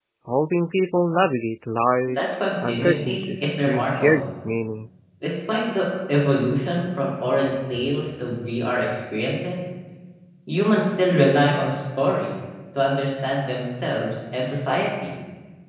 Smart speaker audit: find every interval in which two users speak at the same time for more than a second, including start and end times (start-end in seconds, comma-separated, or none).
2.1-4.2